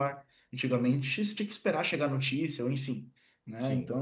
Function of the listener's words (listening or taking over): listening